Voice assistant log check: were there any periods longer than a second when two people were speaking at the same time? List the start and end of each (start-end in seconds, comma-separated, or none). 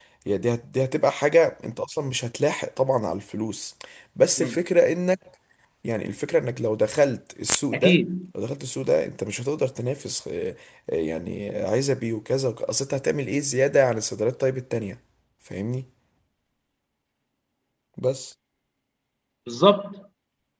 none